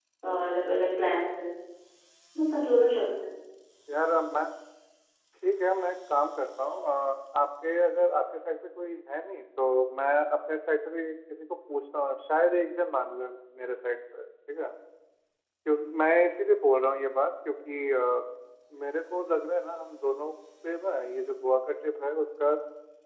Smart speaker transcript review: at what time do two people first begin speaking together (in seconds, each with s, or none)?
none